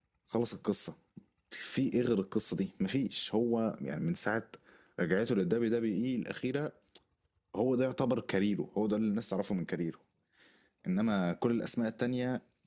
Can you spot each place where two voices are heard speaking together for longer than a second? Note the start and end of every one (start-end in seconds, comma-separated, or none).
none